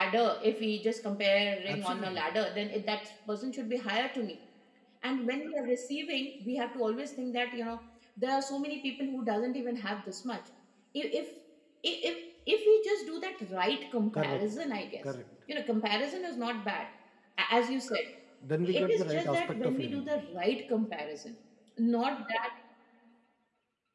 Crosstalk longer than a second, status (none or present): present